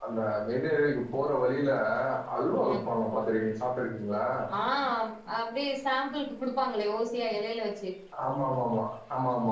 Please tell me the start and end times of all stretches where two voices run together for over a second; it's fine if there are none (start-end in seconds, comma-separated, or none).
none